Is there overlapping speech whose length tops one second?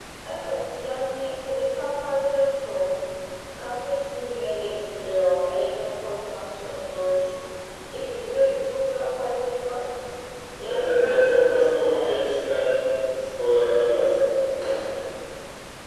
Yes, from 10.6 s

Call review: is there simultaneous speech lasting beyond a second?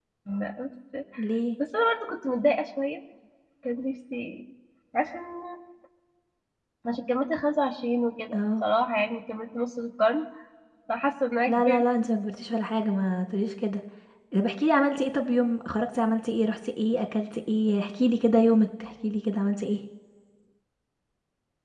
No

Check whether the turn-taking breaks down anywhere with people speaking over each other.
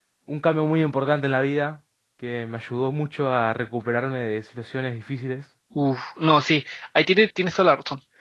No

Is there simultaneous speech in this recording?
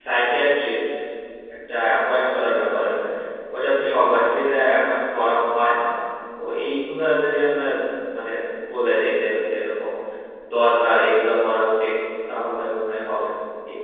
No

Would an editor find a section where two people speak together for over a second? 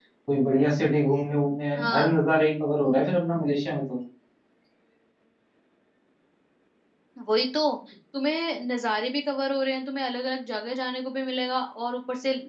No

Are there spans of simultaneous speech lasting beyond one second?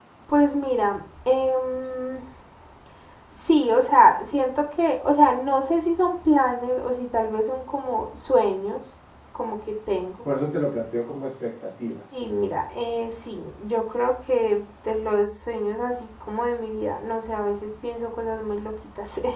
No

